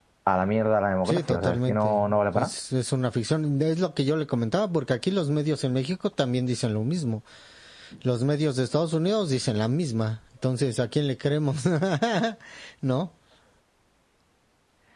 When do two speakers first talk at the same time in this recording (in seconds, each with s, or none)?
1.0 s